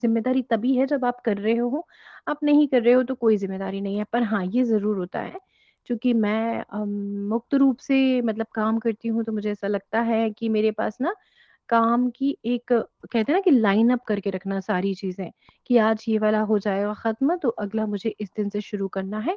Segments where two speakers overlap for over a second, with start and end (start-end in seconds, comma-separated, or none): none